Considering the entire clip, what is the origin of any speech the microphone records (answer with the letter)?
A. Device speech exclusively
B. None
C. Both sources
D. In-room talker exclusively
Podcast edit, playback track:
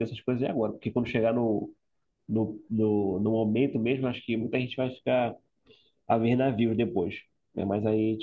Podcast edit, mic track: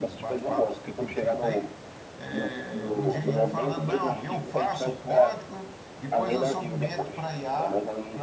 C